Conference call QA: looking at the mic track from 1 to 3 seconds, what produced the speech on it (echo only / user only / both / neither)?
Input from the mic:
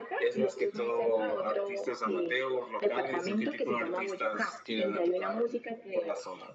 echo only